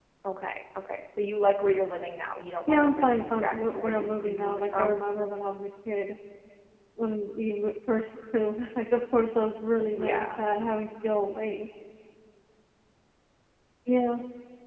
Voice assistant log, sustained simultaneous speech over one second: present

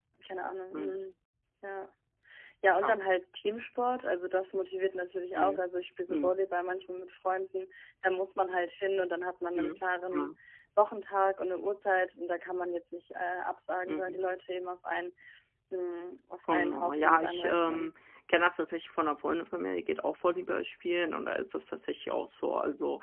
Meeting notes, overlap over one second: present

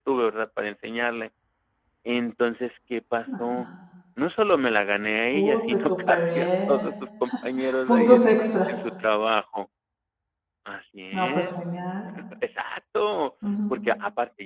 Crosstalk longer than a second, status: present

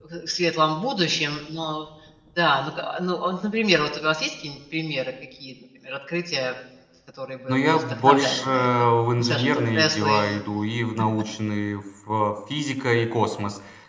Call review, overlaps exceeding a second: present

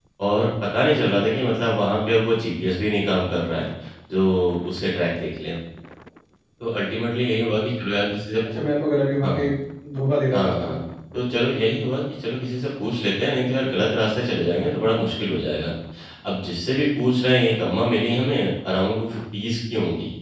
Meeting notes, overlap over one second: none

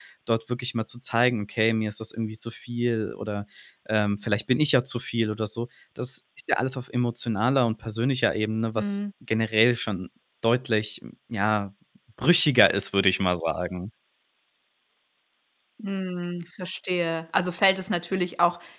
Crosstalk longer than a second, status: none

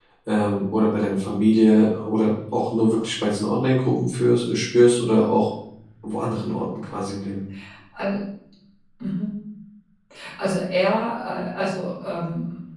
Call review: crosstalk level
none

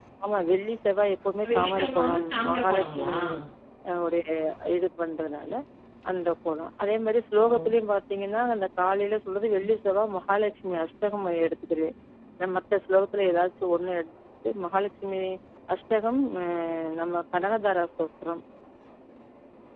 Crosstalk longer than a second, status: present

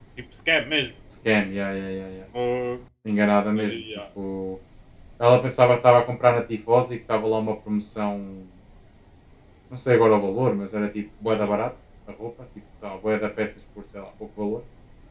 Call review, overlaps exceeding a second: none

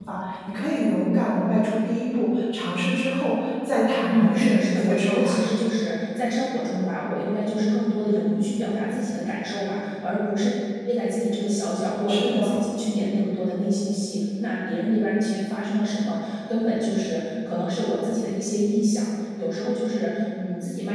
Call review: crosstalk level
present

